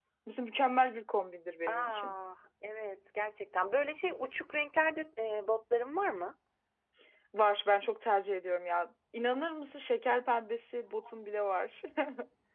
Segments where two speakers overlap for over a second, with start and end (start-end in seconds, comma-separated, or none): none